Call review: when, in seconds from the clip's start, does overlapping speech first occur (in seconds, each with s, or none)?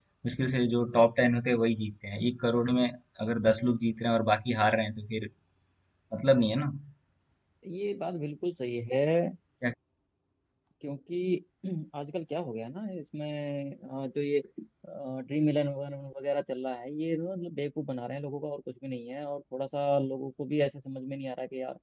none